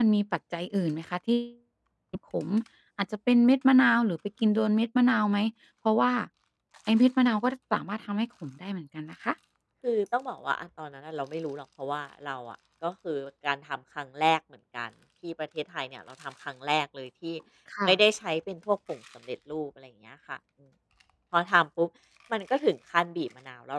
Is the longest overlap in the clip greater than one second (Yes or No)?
No